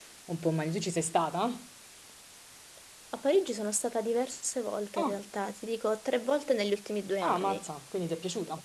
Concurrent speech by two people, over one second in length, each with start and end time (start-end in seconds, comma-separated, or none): none